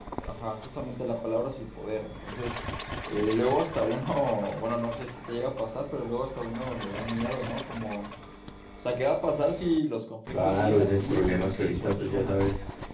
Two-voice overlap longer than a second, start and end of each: 10.3-12.3

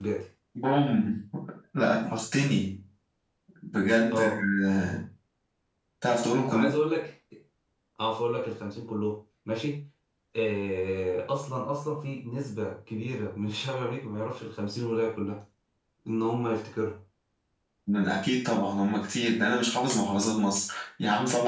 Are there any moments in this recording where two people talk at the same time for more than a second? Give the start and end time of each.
none

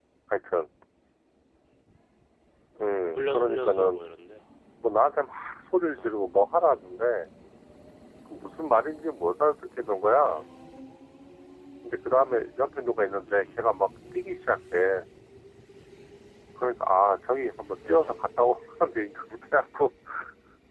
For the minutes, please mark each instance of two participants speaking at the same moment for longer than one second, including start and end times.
2.8-4.0

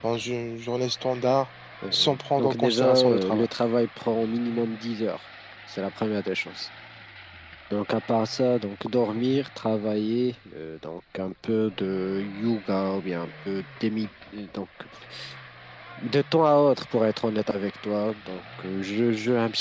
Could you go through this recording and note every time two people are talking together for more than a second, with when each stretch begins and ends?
1.9-3.5

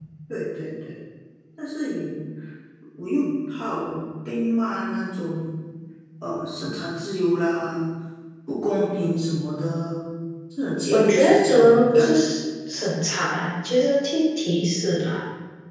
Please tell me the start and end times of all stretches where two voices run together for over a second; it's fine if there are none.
10.9-12.2

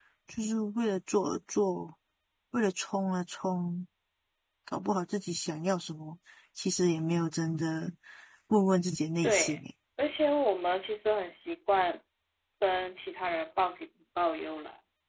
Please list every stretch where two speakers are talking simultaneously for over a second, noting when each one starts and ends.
none

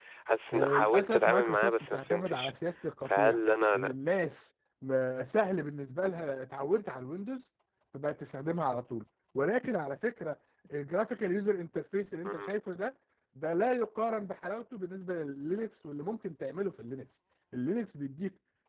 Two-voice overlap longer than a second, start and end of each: 0.5-2.5

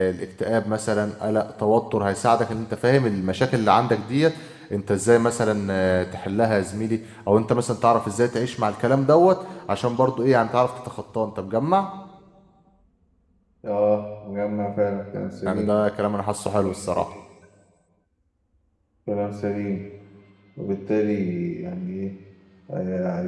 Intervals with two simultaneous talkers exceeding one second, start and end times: none

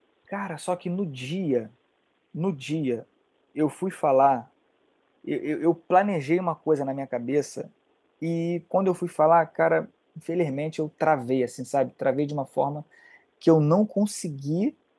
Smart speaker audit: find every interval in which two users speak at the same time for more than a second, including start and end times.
none

